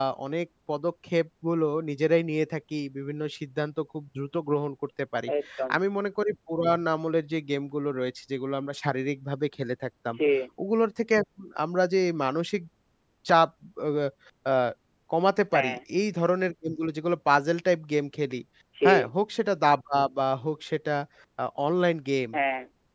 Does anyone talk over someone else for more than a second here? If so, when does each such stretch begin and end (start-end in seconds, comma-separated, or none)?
none